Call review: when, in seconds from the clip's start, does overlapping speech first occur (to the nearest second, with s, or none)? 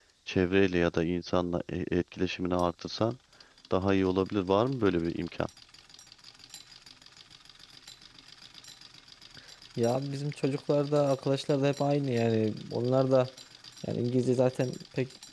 none